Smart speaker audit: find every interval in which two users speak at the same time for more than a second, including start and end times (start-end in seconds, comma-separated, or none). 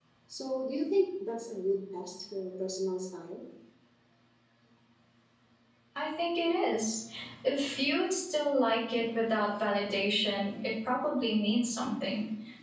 none